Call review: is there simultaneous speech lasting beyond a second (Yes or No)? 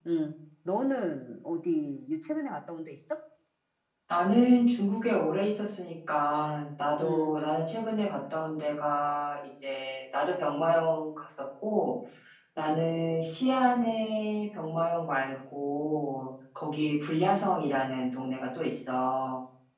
No